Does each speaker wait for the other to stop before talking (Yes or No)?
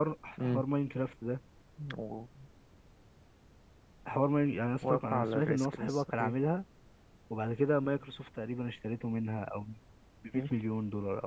No